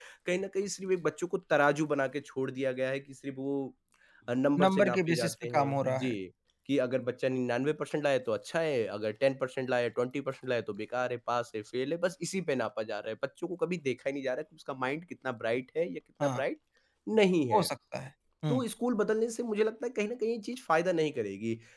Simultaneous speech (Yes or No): Yes